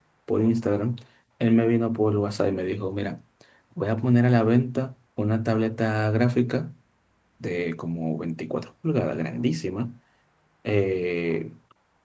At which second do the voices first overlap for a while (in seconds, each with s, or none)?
none